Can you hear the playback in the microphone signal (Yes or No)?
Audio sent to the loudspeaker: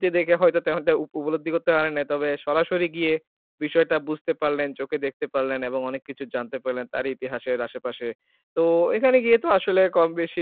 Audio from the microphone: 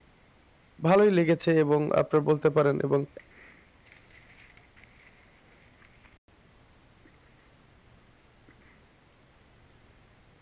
No